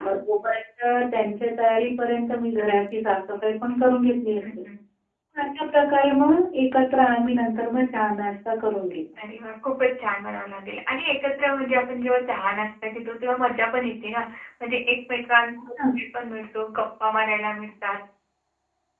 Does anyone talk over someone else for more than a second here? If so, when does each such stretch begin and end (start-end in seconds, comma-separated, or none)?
none